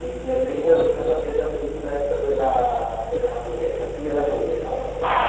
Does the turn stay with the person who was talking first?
No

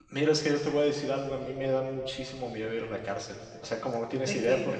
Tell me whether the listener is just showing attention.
Yes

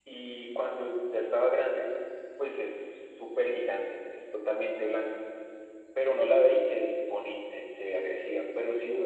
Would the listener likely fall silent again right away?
Yes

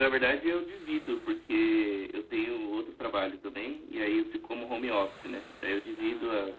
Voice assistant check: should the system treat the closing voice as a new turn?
No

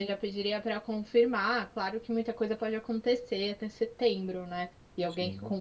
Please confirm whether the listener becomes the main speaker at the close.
No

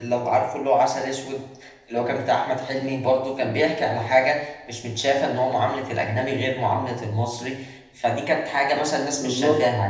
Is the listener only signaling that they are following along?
Yes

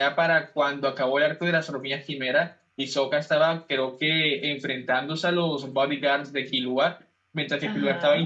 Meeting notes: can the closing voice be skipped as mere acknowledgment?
Yes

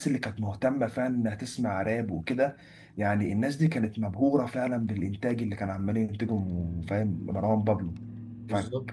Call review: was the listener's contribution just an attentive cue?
Yes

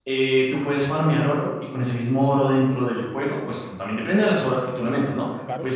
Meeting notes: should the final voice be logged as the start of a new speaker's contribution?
No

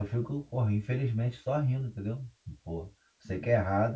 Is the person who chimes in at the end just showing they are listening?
Yes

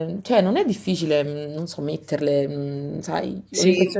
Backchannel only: No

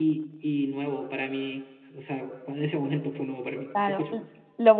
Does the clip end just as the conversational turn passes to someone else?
Yes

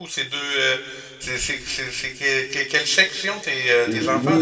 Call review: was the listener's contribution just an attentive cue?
No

